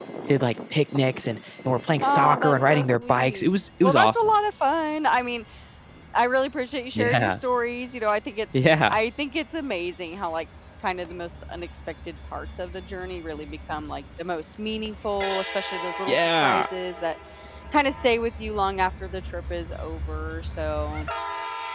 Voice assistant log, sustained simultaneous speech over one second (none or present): present